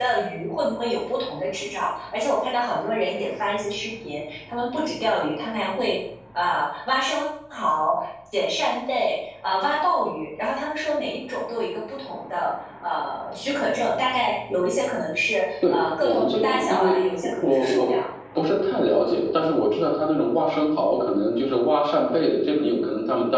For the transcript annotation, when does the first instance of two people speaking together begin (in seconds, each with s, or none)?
15.6 s